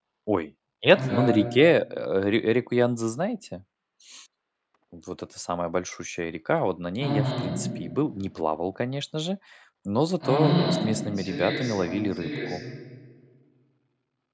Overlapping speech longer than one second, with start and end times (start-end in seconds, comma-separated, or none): 10.2-12.5